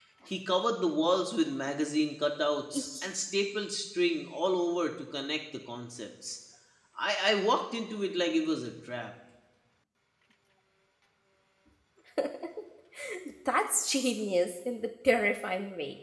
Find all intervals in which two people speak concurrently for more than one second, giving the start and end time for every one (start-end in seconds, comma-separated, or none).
none